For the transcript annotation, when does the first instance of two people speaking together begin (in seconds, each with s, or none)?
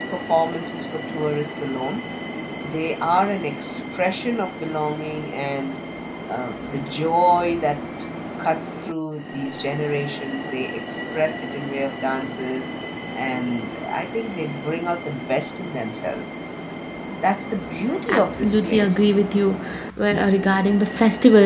17.9 s